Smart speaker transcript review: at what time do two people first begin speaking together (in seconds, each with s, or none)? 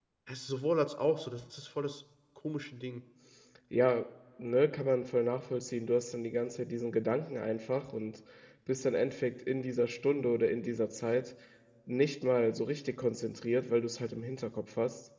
none